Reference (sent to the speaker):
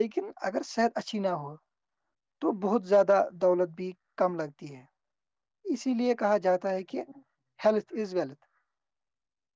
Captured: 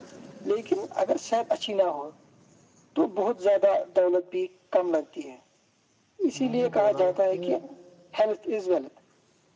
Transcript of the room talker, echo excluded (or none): میں نے بولا کہ